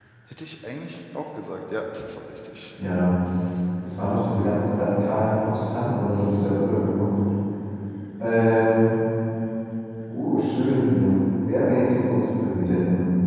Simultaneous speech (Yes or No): No